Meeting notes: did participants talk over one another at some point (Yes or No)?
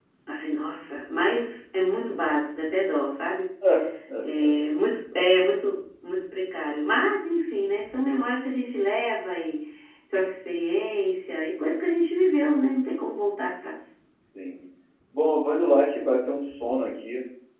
No